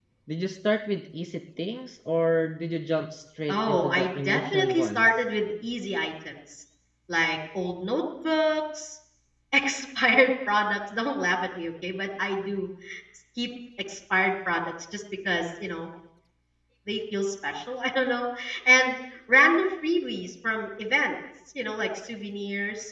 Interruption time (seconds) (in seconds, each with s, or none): 3.5 s